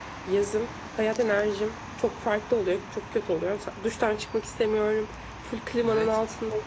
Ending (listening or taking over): listening